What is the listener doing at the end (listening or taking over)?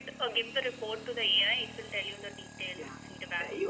taking over